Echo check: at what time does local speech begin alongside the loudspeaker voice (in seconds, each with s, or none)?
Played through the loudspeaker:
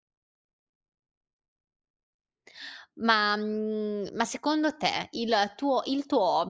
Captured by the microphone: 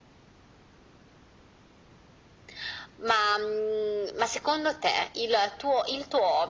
none